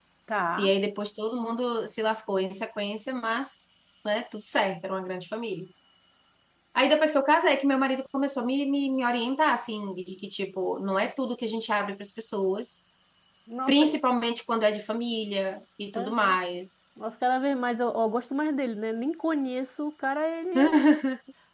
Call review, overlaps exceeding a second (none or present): none